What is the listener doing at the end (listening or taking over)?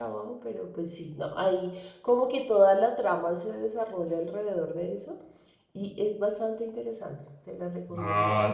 taking over